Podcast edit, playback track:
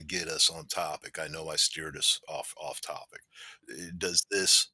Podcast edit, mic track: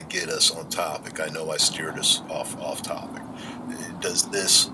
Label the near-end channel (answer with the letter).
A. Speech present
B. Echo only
B